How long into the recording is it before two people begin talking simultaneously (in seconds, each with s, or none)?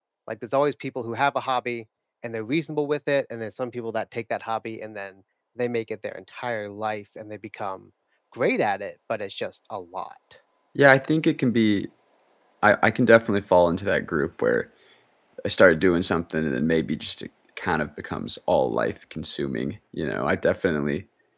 none